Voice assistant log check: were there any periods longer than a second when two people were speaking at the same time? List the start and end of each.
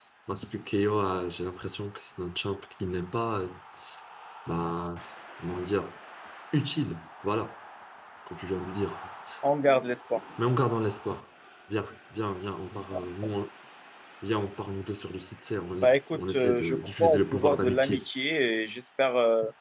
15.8-18.0

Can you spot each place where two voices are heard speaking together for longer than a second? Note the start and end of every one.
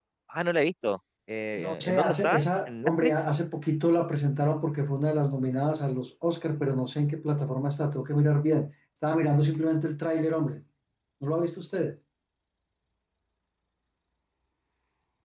1.6-3.3

